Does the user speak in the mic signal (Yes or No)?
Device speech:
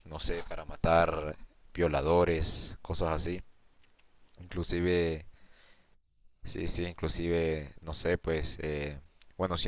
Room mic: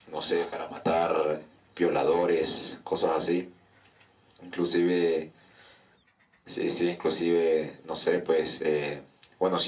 No